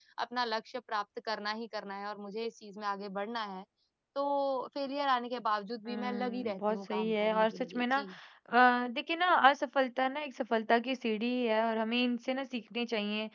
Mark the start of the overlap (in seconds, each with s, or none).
5.9 s